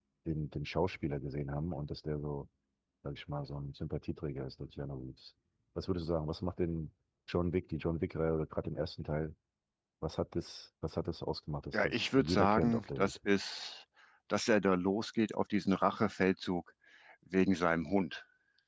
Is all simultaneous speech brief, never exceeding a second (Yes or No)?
No